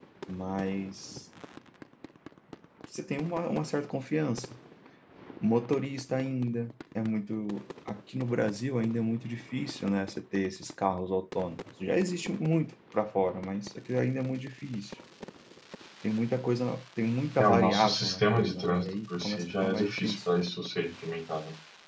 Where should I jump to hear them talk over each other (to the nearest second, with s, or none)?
17 s